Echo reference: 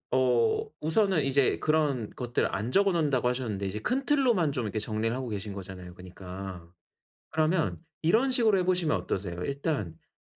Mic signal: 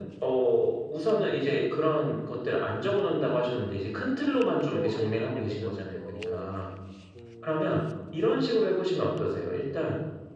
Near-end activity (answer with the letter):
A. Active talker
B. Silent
A